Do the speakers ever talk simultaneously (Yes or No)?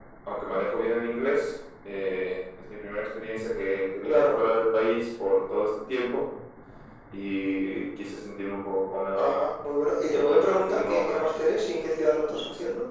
Yes